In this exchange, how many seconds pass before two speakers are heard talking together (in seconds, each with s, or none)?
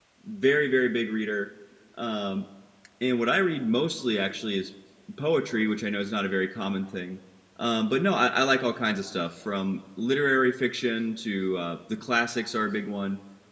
none